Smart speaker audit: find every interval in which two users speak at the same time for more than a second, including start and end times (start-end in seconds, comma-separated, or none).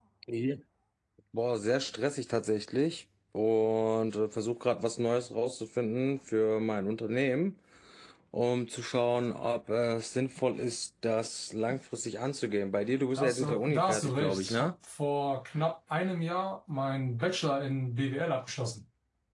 13.2-14.7